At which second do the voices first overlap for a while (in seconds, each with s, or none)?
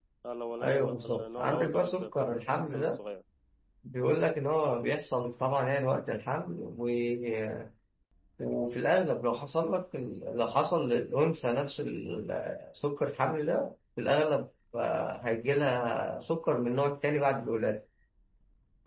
0.6 s